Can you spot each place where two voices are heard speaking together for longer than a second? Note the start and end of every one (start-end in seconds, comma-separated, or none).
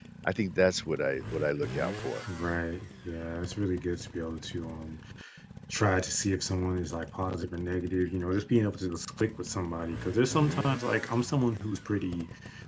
none